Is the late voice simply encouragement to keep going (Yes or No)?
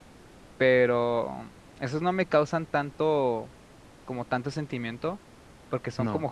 Yes